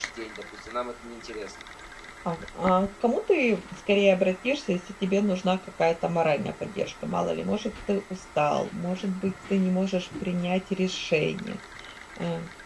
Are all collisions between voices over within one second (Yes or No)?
Yes